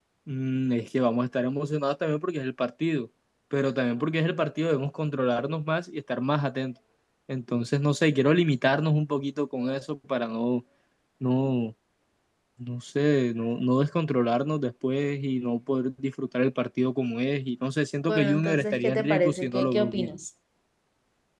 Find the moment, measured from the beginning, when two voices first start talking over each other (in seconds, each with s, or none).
18.1 s